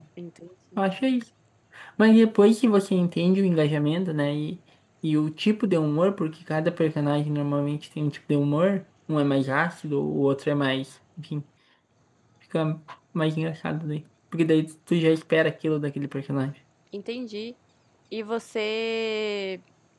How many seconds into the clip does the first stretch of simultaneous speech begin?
none

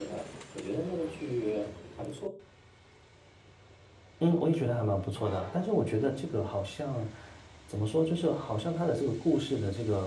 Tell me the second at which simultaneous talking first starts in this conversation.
none

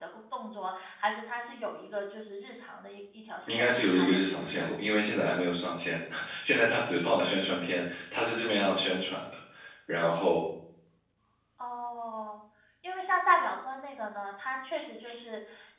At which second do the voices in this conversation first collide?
3.5 s

